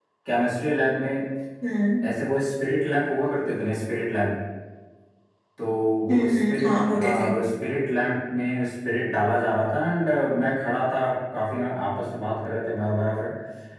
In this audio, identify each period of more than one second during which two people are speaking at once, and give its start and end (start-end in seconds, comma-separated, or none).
6.1-7.3